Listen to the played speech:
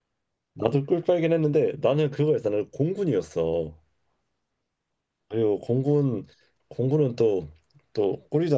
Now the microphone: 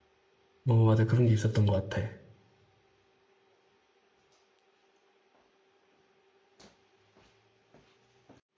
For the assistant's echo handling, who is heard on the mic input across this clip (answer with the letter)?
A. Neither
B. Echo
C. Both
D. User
D